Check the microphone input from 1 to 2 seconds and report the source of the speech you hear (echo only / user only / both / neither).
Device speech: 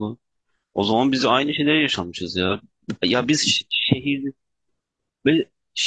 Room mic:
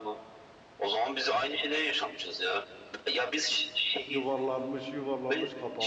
echo only